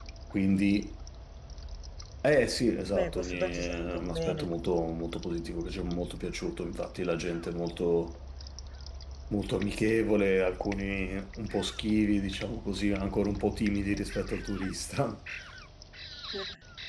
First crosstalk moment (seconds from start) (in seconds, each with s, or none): 2.9 s